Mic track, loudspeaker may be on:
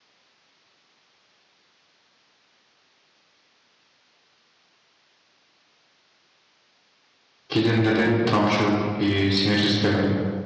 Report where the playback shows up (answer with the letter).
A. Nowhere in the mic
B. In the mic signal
A